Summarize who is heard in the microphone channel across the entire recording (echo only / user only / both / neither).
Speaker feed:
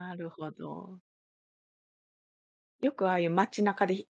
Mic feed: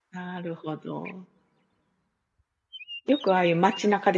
echo only